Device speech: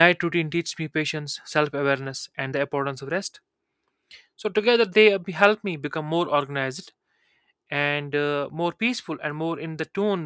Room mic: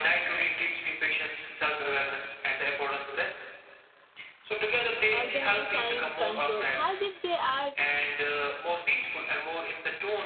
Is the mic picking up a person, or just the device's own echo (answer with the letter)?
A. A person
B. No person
A